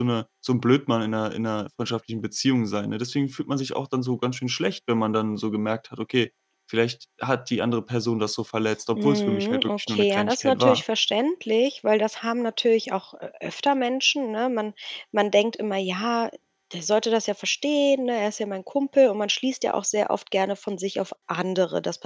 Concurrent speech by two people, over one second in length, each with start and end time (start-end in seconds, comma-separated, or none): 8.9-10.8